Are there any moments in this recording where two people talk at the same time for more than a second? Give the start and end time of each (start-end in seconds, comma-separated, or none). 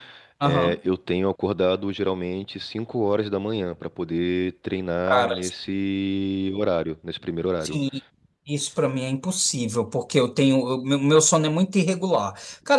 none